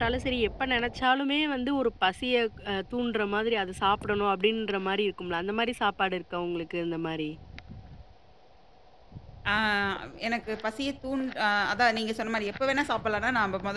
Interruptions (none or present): none